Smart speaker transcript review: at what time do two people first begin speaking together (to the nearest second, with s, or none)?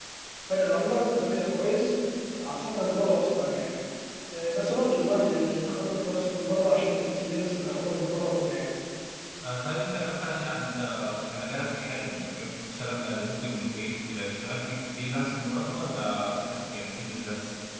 none